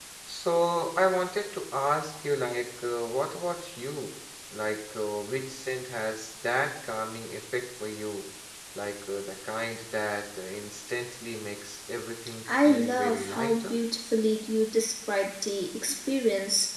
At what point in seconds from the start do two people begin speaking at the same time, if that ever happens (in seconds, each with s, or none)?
12.4 s